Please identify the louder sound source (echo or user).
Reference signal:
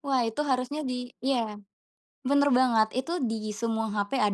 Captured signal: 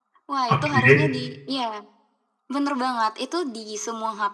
user